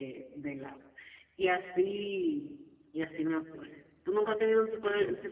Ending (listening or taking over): listening